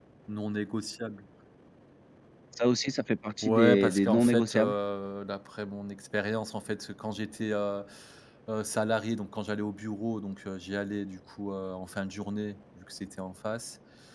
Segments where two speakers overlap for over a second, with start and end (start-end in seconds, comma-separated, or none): 3.4-4.7